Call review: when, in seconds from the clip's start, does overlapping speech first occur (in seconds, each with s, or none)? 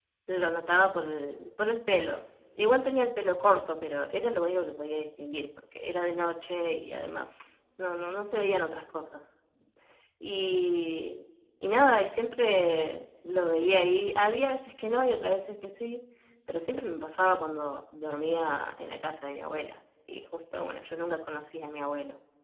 none